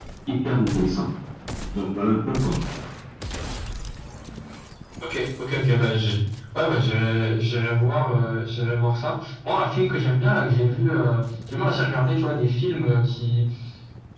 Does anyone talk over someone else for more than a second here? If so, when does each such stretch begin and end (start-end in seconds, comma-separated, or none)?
none